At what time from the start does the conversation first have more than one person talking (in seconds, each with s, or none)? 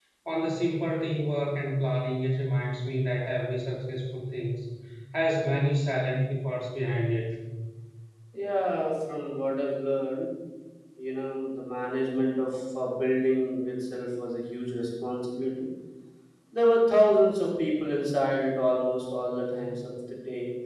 none